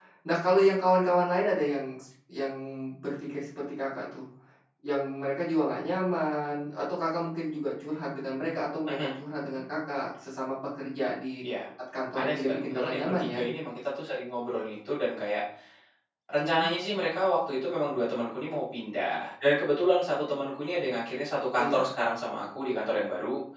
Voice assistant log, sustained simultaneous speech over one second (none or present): present